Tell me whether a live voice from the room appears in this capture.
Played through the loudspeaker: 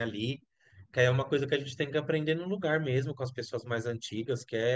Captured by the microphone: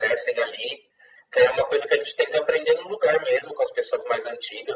No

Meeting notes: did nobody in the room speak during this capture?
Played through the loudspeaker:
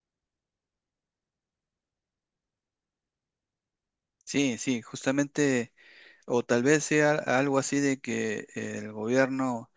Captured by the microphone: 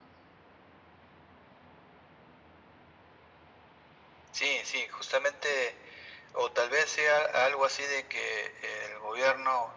Yes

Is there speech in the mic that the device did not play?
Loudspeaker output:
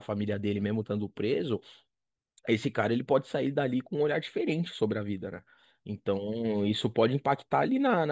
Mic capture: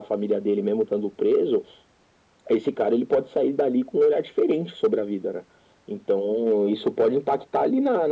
No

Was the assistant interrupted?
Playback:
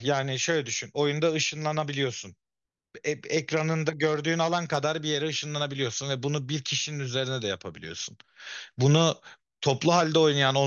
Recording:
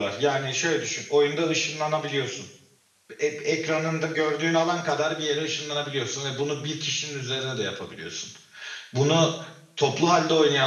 No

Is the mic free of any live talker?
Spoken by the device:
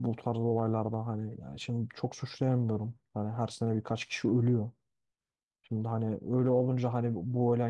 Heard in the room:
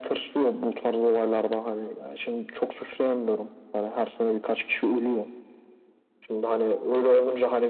Yes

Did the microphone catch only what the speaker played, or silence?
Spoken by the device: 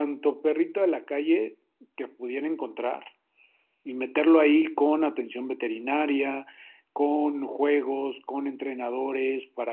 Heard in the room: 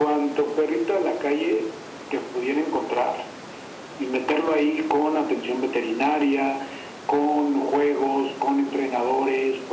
Yes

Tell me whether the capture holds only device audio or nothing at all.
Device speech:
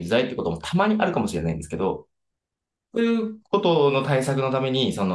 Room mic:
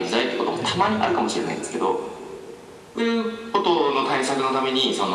No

